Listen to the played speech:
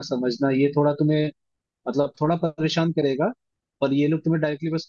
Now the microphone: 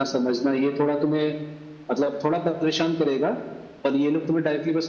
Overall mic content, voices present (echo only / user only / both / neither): echo only